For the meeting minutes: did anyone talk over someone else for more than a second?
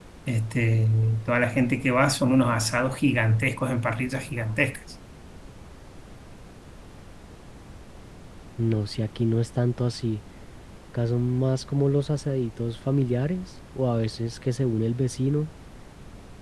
No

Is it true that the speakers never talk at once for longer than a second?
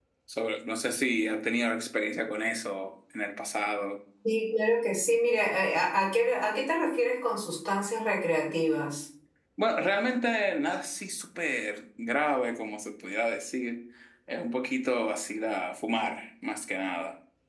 Yes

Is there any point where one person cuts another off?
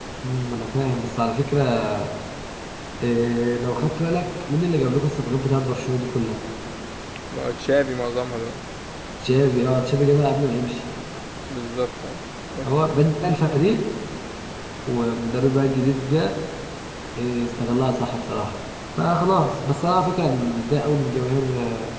No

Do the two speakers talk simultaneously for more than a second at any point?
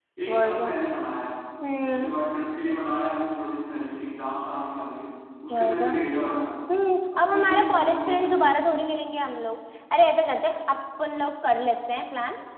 Yes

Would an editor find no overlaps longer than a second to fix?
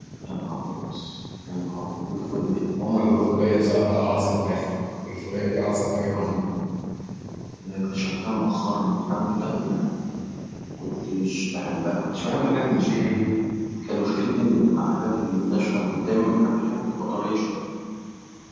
No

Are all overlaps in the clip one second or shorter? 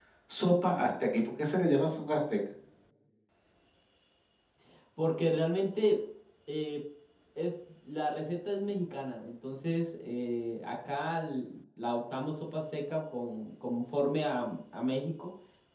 Yes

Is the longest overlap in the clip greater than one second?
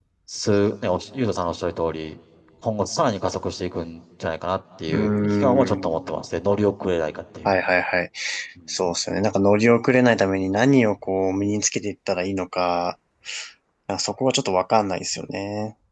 Yes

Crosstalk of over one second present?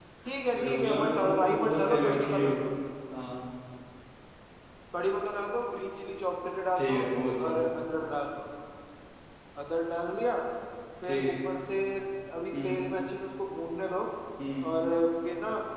Yes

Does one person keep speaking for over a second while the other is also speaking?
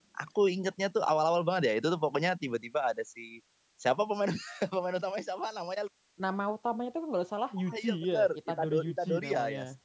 Yes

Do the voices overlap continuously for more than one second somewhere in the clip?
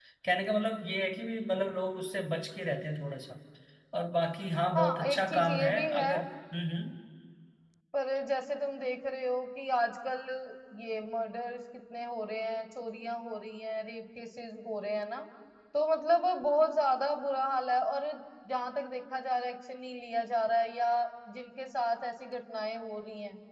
Yes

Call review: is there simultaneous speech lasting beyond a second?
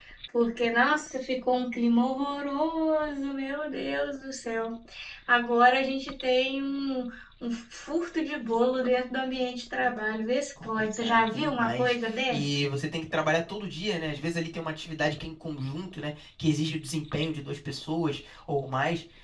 Yes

